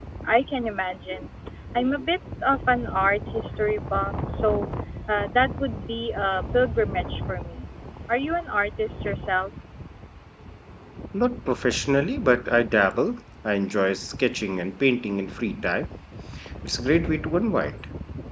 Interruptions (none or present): none